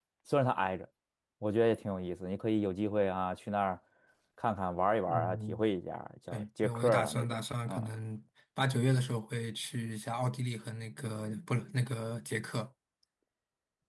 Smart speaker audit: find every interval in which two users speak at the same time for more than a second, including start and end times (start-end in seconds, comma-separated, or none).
6.3-7.9